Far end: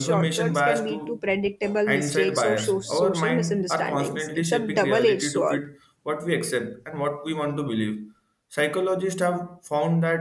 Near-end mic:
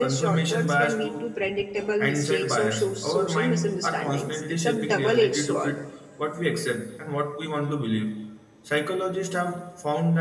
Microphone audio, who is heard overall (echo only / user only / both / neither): echo only